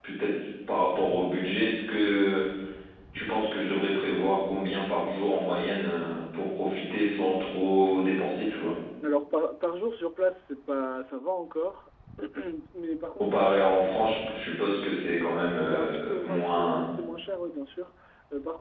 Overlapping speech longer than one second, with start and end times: 15.7-17.0

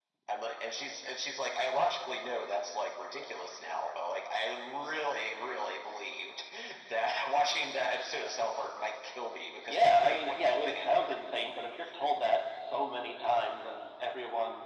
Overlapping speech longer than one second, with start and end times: 9.7-11.1

